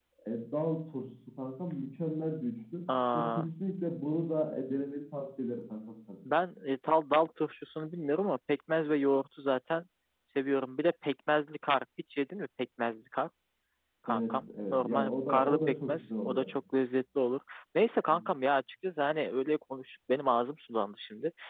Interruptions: present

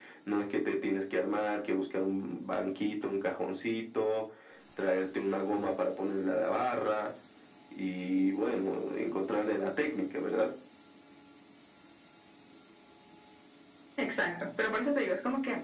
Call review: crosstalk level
none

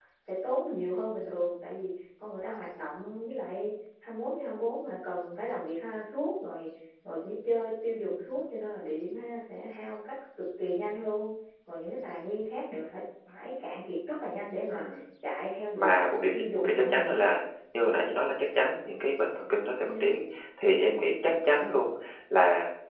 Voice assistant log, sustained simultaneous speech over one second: present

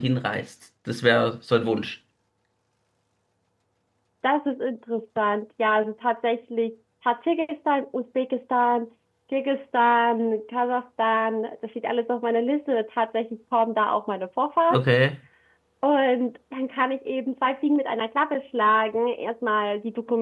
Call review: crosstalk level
none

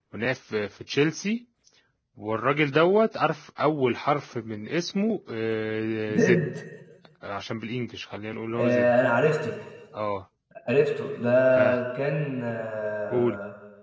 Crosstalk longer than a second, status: none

